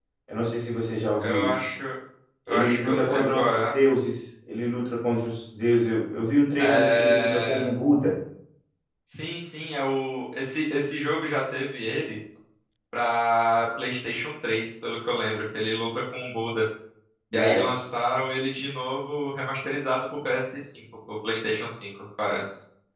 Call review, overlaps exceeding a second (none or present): present